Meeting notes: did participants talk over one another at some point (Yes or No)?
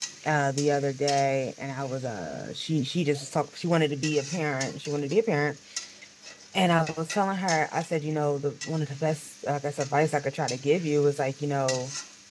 No